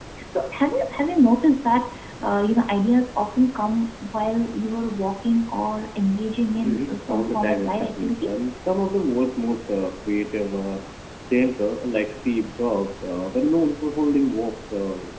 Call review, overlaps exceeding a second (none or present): present